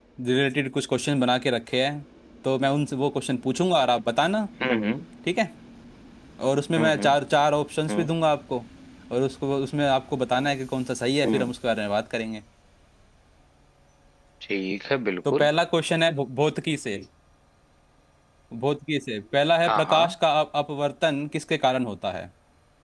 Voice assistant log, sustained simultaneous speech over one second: none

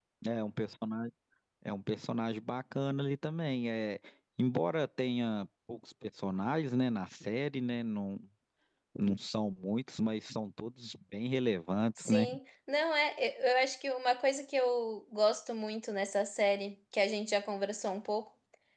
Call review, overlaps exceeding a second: none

